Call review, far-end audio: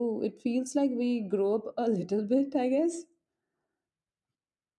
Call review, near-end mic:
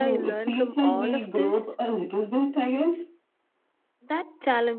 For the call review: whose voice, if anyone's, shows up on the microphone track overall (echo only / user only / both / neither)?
both